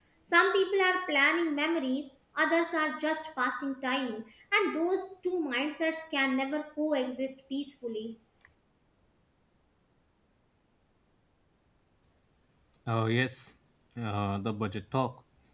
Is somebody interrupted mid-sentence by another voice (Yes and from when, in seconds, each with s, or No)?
No